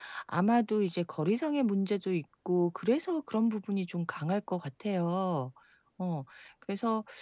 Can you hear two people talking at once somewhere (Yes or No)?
No